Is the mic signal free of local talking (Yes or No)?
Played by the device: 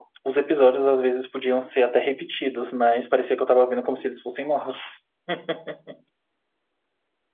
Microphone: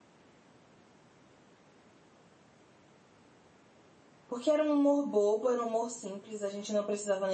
No